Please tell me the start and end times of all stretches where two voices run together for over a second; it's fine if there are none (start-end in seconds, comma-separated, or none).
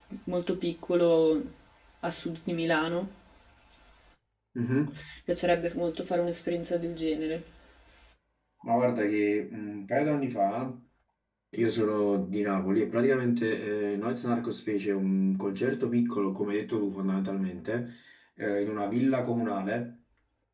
none